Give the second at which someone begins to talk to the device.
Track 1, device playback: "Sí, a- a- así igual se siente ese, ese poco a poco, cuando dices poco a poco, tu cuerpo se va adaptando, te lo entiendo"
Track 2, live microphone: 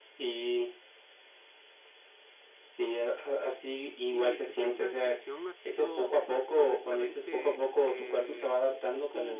4 s

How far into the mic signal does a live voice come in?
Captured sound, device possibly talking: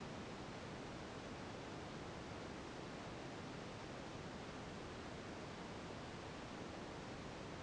none

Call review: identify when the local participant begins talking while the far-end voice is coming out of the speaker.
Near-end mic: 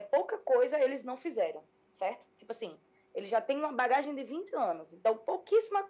none

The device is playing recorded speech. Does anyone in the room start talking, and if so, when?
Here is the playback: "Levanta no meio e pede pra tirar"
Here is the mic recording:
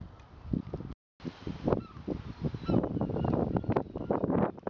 none

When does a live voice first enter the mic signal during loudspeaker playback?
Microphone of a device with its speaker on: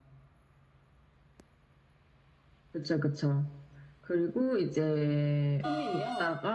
6 s

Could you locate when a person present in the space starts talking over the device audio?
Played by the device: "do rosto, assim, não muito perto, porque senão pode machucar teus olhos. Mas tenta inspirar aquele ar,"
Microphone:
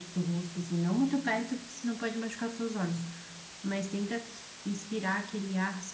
none

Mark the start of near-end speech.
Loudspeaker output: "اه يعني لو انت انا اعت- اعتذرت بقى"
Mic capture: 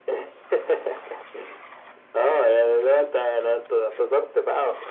none

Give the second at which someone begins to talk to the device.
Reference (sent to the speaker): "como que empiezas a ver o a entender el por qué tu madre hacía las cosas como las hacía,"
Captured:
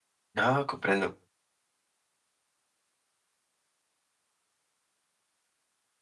0 s

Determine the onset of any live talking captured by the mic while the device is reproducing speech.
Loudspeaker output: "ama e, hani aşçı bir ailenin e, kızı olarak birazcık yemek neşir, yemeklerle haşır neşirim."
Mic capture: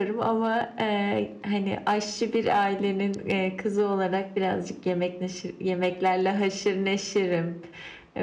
none

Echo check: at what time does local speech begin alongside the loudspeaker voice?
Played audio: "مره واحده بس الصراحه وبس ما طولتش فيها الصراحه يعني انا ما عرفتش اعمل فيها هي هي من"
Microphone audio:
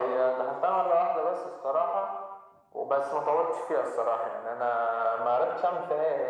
none

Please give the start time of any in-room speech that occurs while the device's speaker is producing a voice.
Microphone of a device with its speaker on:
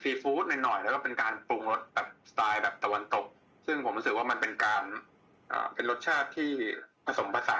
none

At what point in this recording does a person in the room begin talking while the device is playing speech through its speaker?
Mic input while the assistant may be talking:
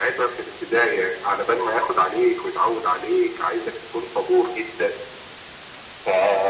none

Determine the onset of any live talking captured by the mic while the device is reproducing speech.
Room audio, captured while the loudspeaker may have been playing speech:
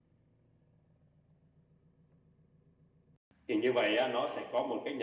3 s

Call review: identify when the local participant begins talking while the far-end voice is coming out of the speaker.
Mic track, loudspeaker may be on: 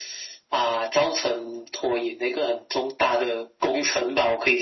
none

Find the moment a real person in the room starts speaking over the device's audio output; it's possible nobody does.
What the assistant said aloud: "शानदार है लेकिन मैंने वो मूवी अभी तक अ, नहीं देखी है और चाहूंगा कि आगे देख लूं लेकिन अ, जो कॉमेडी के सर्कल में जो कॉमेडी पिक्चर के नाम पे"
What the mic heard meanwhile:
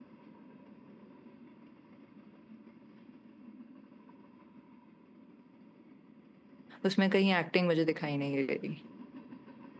7 s

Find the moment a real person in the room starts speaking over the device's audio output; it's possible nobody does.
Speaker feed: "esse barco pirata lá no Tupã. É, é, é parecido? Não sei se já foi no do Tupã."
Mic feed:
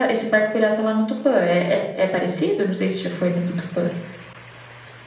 none

